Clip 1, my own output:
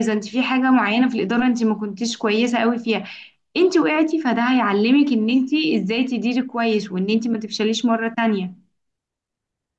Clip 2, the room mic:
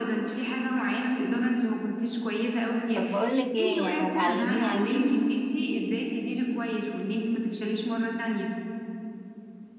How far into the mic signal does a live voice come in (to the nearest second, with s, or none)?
3 s